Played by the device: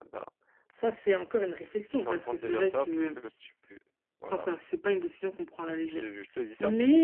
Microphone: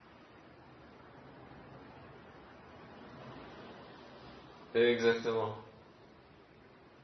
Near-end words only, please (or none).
exactement,